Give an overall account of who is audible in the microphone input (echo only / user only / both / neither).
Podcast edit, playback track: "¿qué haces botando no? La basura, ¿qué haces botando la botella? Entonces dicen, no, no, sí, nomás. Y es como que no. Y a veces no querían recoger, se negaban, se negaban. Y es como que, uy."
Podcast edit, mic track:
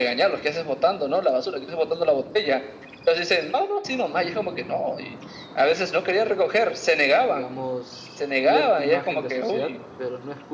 both